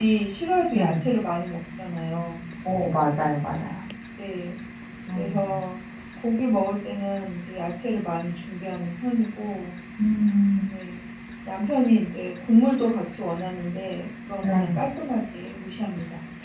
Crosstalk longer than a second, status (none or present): none